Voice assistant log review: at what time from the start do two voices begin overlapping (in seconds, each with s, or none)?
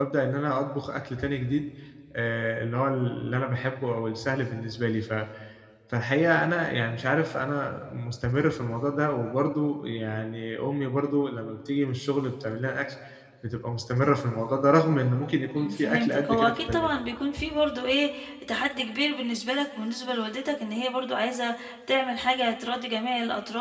15.6 s